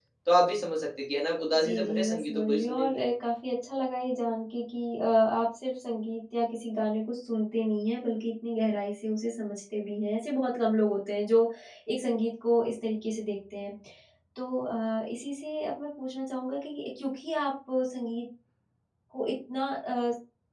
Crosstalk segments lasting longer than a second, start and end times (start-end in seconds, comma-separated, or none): 1.6-3.0